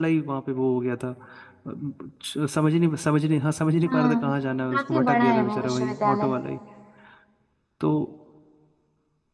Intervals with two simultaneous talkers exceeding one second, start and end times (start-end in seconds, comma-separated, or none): 4.7-6.3